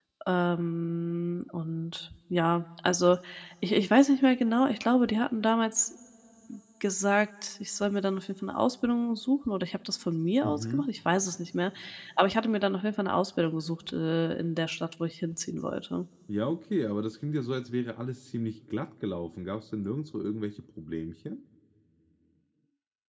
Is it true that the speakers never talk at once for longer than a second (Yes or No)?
Yes